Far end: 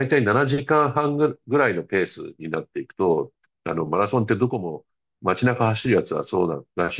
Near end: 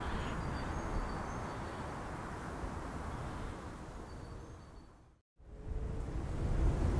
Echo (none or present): none